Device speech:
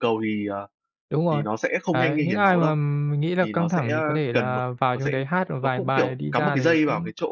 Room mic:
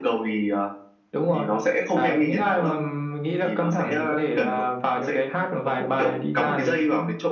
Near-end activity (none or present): none